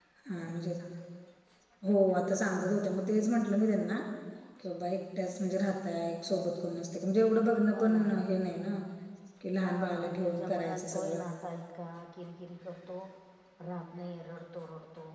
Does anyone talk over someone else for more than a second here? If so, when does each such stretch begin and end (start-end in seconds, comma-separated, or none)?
9.6-11.2